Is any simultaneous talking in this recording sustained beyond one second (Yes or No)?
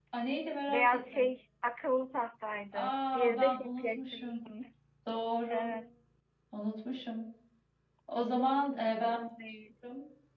Yes